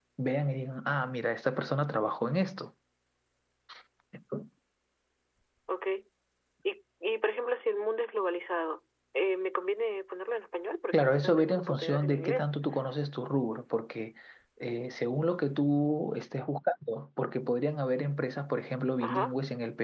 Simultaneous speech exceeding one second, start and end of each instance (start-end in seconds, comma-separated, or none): 10.9-12.5